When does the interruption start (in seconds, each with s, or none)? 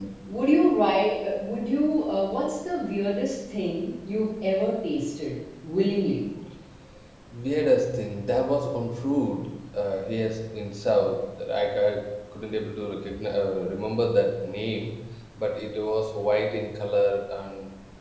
none